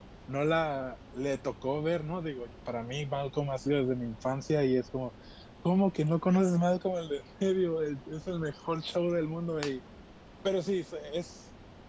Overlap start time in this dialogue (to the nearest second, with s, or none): none